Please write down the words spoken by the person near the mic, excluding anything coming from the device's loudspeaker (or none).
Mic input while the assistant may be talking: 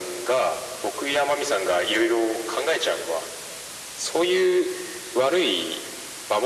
none